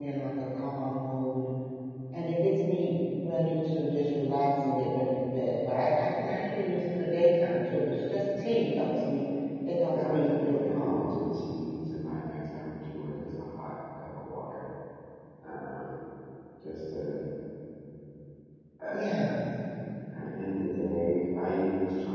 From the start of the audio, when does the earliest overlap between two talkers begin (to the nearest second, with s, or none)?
10 s